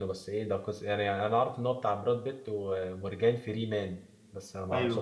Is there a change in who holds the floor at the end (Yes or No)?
Yes